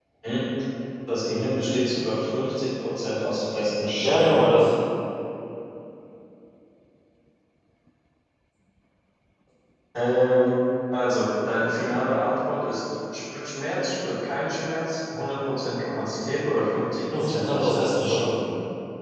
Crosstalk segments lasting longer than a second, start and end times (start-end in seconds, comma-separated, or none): 17.1-18.4